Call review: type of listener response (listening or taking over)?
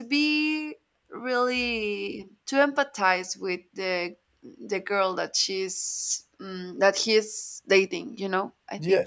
taking over